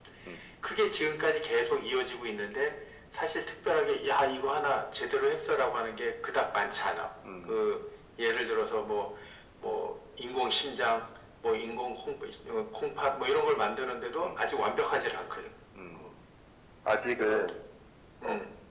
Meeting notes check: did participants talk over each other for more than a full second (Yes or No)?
No